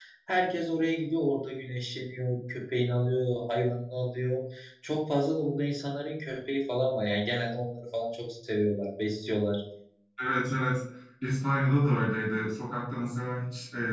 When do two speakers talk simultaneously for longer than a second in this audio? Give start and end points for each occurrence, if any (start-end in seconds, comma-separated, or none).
none